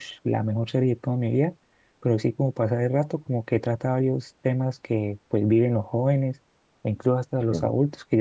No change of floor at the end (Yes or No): Yes